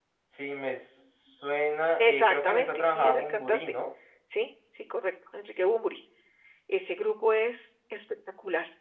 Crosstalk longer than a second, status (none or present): present